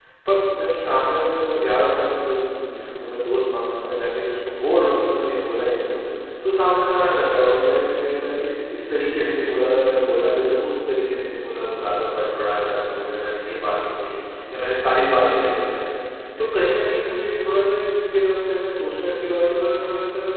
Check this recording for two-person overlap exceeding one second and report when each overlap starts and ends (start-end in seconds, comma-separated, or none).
none